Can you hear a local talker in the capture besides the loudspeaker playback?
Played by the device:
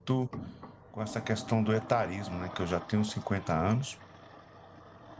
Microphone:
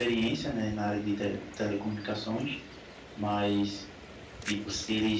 Yes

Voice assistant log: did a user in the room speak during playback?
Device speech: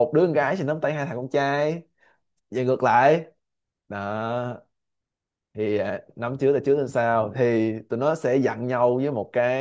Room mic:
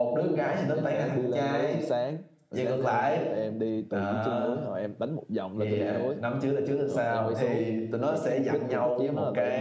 Yes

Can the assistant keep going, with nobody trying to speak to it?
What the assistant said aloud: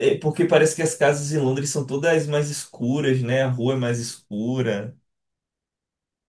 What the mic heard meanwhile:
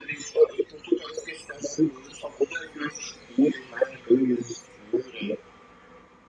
Yes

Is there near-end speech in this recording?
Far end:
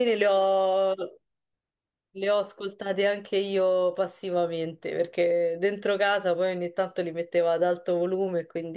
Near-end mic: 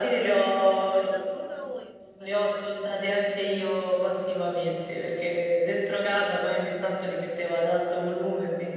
Yes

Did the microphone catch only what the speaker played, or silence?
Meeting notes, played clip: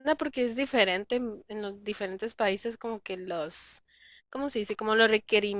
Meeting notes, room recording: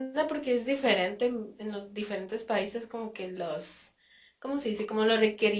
Yes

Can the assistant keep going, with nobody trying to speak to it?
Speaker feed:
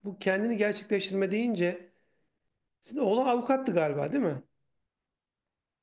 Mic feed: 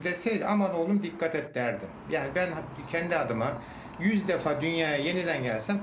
No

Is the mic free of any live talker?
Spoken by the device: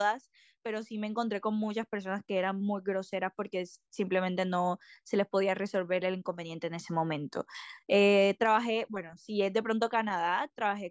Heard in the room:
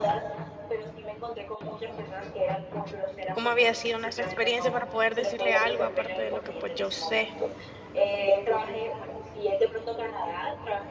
No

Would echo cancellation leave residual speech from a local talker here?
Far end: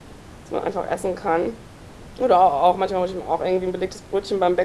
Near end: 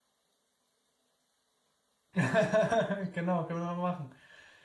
Yes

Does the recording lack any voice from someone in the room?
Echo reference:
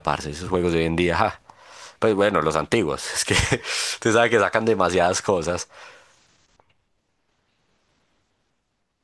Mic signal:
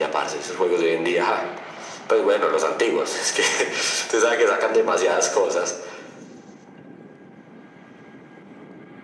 Yes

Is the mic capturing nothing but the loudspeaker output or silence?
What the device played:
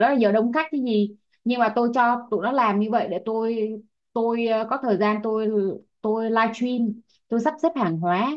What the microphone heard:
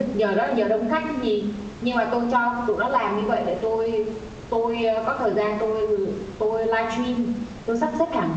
Yes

